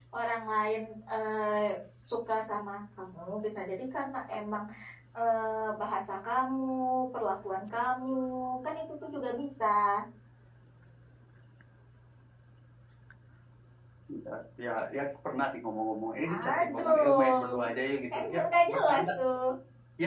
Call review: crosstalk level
present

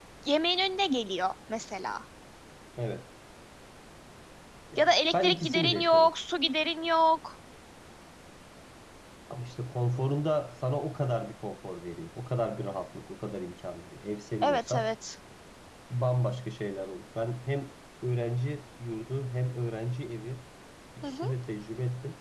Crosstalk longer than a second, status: present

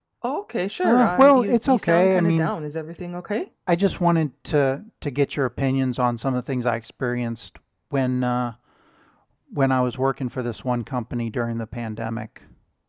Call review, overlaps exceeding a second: present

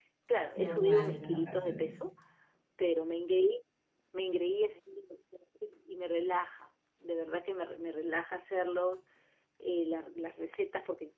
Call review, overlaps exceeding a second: present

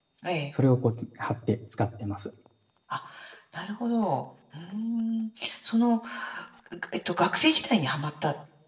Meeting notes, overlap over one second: none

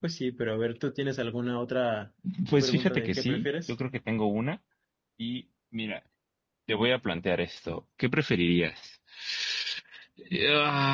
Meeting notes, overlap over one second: present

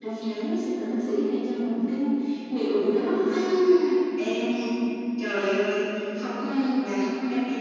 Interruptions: none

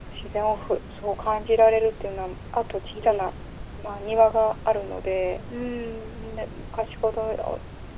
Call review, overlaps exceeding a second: none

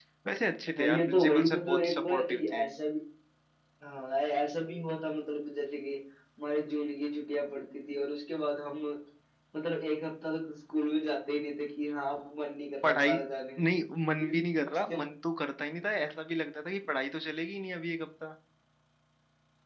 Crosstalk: present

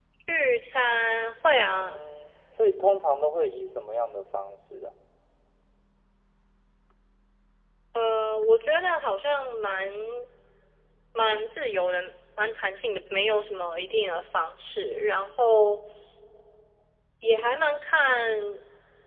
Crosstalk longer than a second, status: none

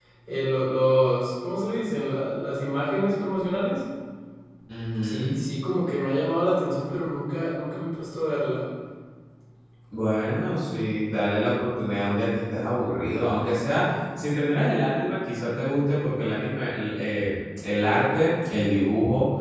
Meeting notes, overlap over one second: none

